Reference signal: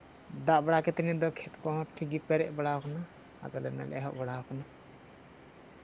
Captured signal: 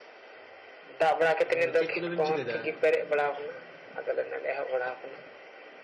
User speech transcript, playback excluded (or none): ᱟᱫᱚ ᱪᱮᱫ ᱠᱚᱫᱚᱵᱤᱱ ᱪᱤᱠᱟᱹᱭ ᱫᱟ?